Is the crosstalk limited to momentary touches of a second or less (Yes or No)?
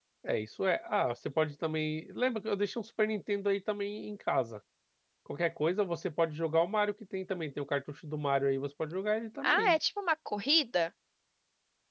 Yes